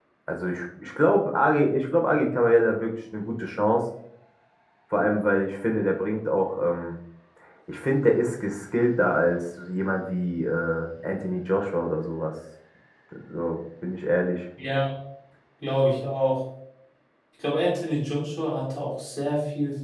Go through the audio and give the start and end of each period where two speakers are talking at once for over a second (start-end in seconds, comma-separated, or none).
none